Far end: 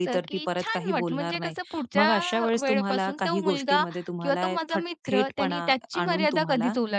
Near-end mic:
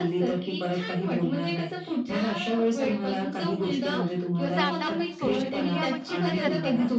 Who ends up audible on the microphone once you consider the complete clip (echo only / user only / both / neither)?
both